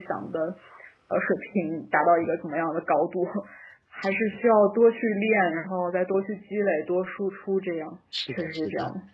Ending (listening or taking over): taking over